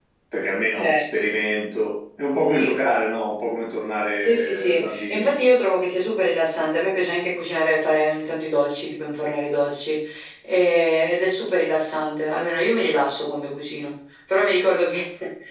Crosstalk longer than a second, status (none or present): present